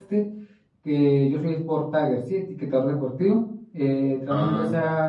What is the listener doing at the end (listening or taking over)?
listening